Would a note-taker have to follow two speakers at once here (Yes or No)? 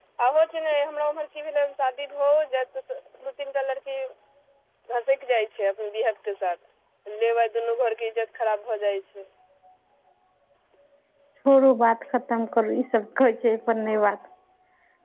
No